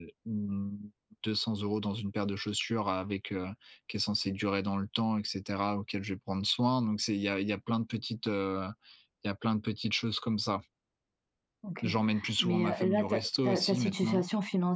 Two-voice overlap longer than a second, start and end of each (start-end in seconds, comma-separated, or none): 12.4-14.2